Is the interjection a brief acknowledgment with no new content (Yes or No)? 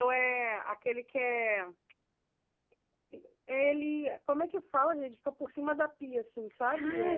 No